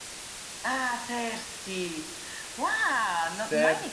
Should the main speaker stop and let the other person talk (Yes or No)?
No